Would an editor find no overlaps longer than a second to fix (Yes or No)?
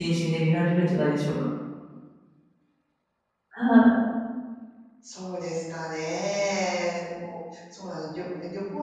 Yes